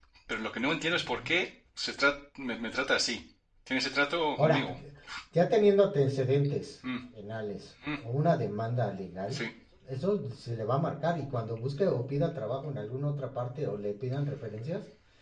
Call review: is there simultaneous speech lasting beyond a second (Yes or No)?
No